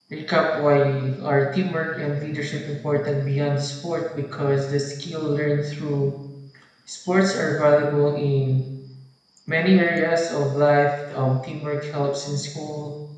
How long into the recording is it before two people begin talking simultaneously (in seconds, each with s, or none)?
none